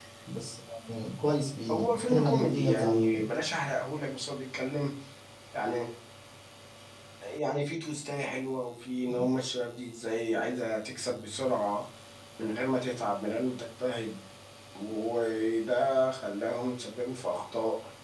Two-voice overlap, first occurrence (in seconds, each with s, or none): 1.7 s